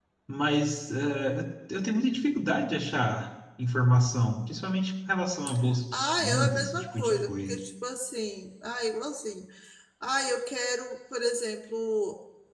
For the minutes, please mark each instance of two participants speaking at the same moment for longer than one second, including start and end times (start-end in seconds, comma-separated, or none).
5.9-7.6